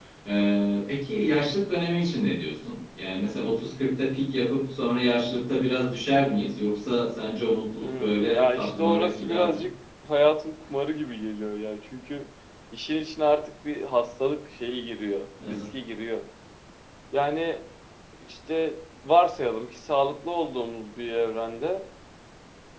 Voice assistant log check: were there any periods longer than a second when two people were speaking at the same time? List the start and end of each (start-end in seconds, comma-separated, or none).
7.8-9.6